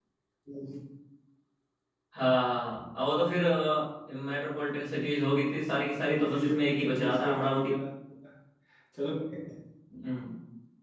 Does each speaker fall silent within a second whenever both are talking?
No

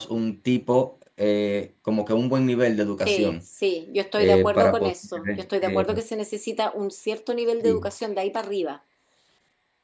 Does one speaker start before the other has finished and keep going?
Yes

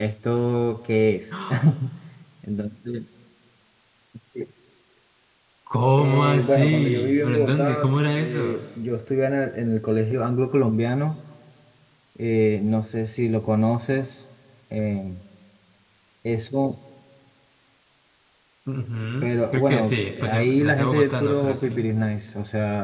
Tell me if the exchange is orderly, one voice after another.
No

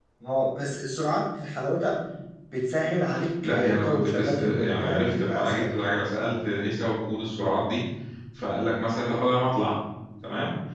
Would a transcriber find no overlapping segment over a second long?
No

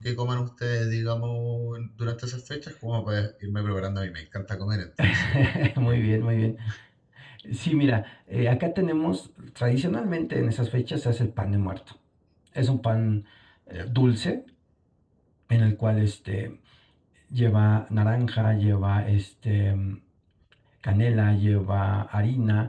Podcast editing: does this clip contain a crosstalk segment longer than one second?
No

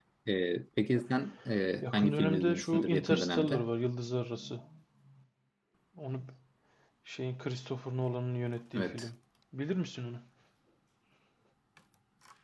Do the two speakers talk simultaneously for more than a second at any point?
Yes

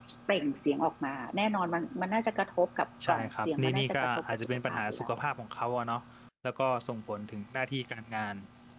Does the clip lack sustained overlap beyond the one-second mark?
No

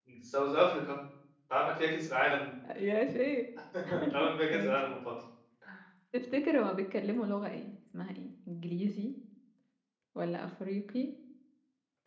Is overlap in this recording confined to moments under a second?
Yes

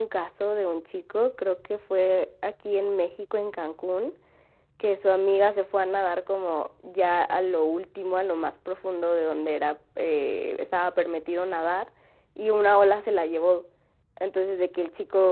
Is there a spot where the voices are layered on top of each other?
No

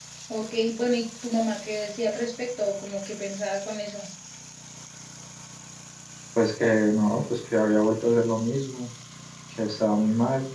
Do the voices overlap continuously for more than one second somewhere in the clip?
No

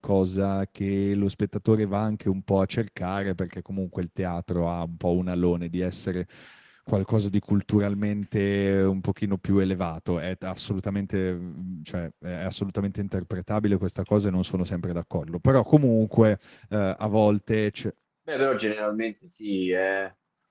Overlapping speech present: No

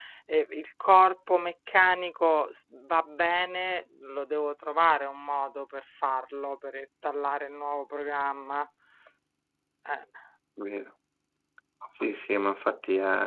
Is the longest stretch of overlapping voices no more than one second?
Yes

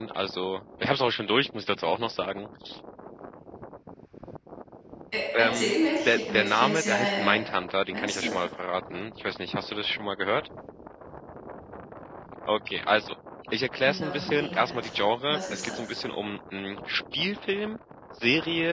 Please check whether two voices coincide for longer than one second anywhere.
Yes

